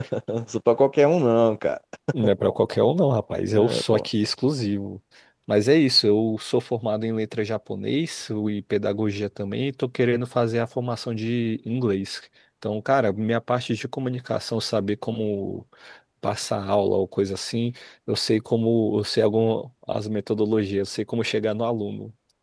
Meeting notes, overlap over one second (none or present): none